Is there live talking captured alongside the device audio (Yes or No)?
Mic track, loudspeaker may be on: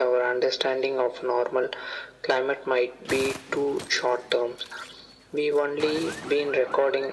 No